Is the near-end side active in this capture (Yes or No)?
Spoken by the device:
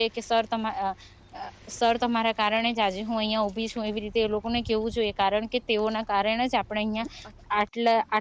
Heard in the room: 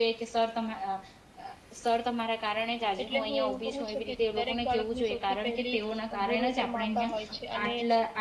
Yes